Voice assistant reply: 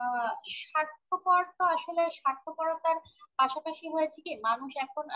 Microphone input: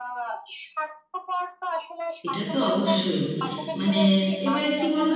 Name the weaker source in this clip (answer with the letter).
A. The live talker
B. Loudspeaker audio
B